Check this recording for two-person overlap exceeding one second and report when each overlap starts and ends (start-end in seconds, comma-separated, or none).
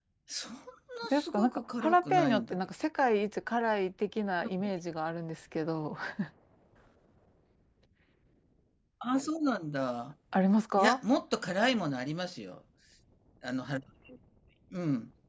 1.1-2.6